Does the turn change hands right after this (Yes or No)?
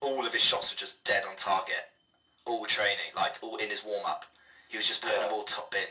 No